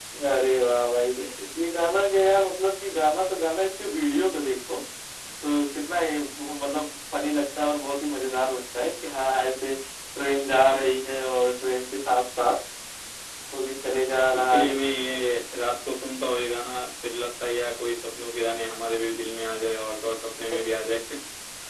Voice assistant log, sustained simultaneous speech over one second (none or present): none